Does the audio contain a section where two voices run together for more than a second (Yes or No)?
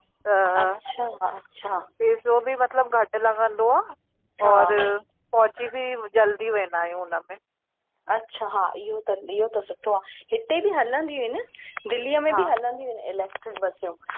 No